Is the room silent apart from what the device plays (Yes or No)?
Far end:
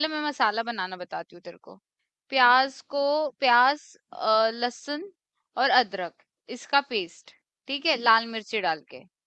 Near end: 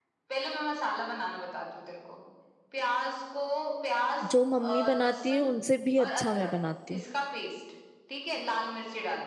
No